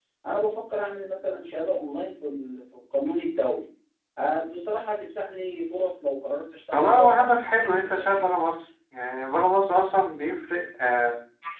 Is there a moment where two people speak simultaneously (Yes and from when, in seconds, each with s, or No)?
Yes, from 6.7 s